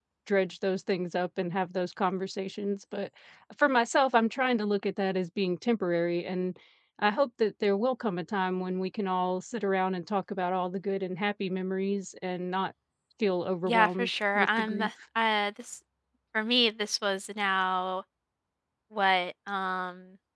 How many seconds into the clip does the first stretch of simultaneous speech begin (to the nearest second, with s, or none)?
14 s